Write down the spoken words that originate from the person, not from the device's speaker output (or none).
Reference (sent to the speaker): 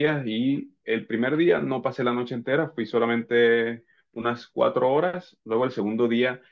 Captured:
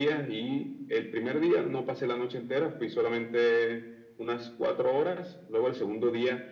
none